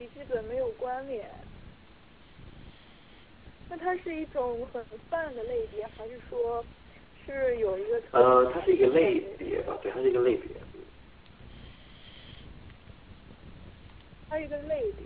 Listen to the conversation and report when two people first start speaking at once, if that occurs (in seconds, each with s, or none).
8.1 s